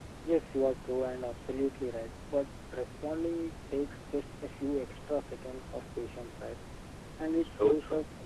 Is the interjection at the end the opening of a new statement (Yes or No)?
No